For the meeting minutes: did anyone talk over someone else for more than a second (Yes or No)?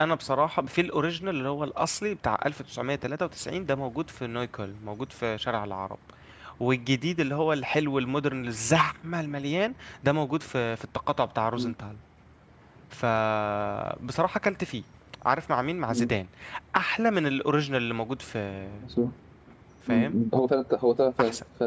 No